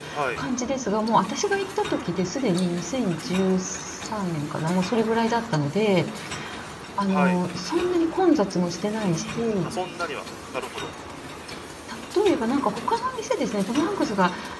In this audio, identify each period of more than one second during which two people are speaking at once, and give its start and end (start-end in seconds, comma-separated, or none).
none